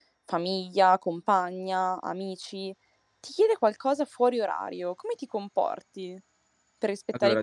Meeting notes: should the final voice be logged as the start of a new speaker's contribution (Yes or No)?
No